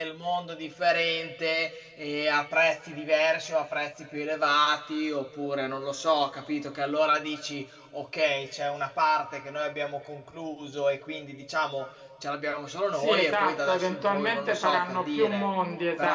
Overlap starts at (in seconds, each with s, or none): 12.9 s